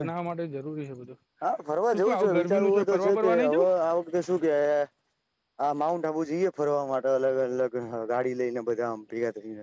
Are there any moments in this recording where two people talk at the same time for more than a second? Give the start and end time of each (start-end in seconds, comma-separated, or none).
1.9-3.7